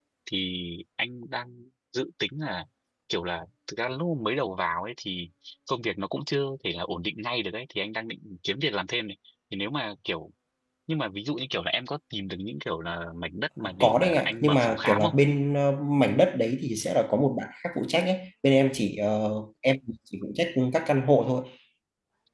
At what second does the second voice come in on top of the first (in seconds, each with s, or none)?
13.8 s